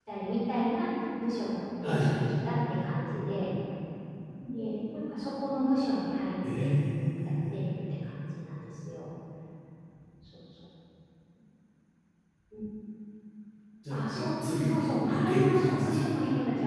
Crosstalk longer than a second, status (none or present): present